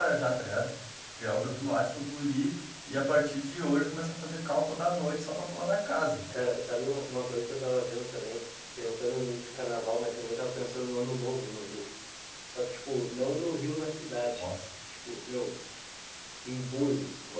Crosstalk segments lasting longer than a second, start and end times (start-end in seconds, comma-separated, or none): none